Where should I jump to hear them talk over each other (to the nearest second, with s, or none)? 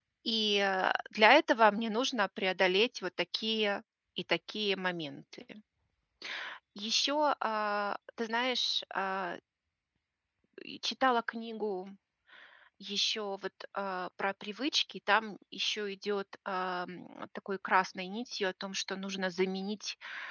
none